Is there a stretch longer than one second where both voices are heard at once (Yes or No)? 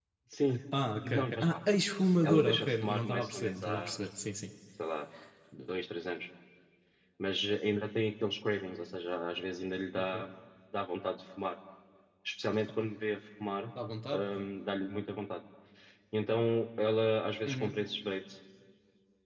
Yes